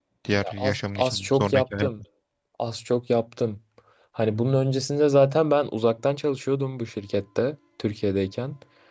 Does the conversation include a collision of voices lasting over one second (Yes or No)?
Yes